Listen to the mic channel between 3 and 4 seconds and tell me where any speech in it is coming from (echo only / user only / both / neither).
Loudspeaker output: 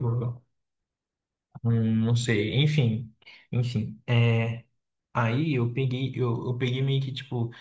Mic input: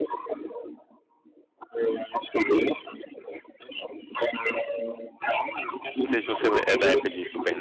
echo only